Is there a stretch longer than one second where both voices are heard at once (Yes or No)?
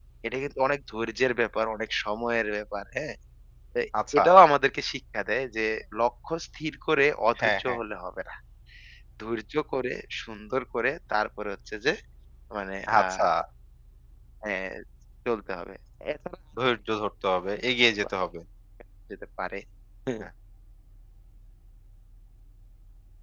No